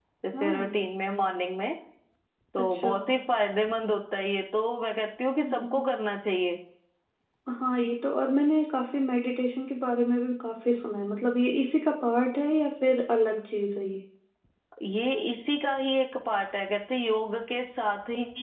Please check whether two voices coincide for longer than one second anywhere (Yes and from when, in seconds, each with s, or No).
No